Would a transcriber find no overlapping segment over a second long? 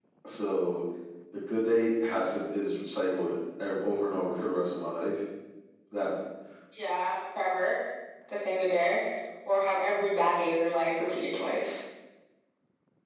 Yes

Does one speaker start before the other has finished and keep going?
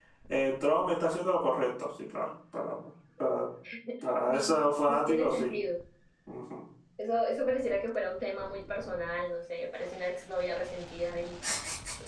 Yes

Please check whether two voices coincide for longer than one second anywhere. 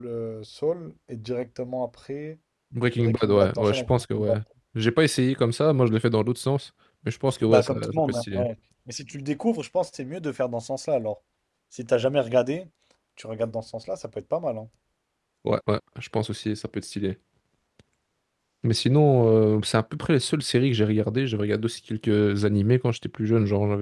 Yes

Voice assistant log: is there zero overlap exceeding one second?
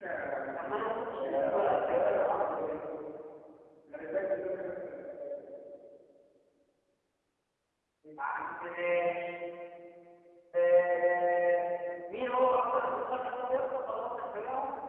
No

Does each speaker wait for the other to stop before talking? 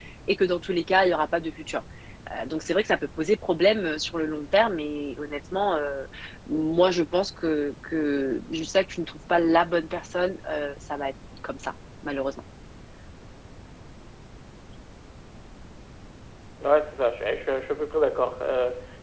Yes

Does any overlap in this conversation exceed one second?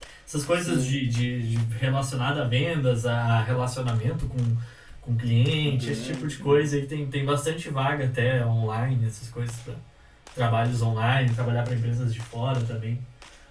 Yes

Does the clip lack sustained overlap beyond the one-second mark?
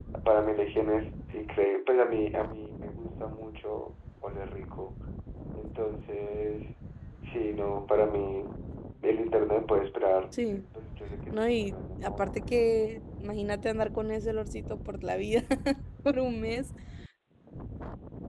No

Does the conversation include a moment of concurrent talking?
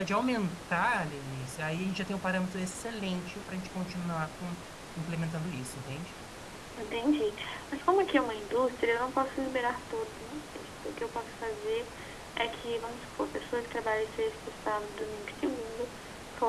No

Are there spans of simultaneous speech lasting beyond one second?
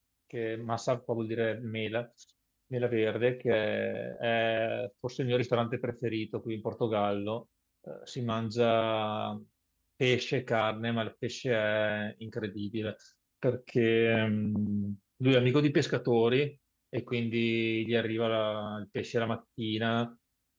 No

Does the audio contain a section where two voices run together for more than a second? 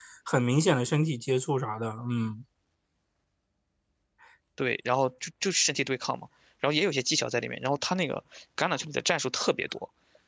No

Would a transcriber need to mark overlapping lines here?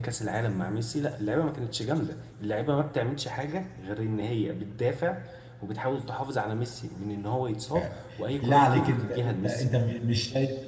Yes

